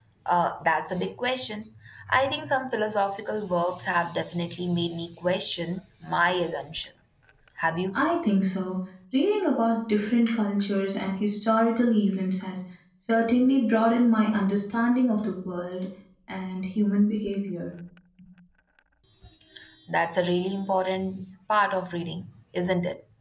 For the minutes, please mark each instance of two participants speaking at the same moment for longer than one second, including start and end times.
none

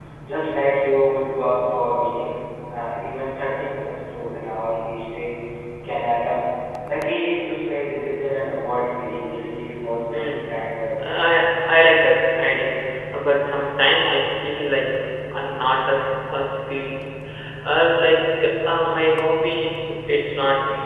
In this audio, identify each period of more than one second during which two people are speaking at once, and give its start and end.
10.1-11.4

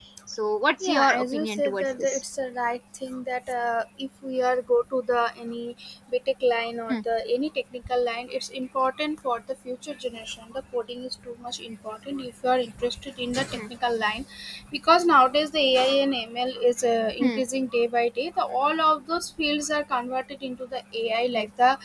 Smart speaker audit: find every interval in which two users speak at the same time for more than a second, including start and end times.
0.8-2.2

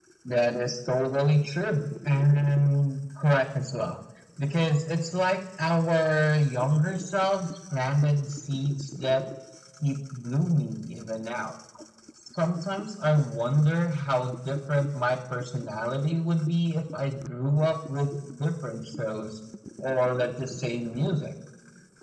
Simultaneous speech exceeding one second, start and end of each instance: none

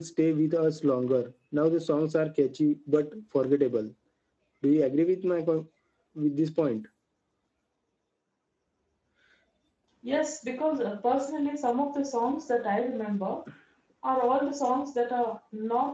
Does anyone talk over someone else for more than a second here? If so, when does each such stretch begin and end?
none

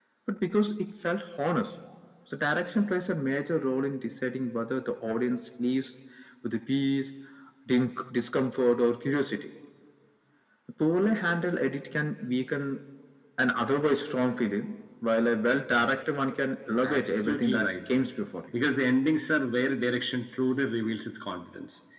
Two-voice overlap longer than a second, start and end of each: 16.8-18.0

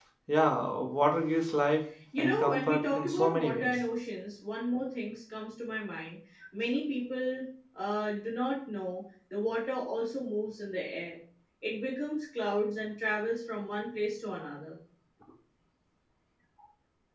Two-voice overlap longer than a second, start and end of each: 2.2-3.8

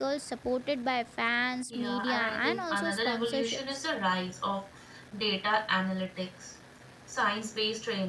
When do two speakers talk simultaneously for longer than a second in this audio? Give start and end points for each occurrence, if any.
1.7-3.9

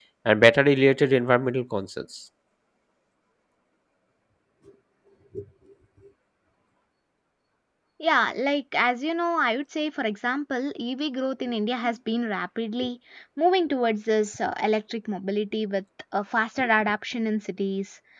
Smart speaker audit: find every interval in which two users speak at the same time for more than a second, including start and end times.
none

